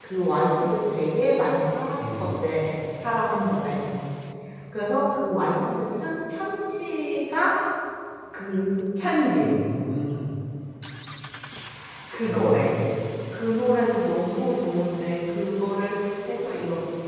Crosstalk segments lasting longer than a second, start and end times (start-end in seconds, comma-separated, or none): none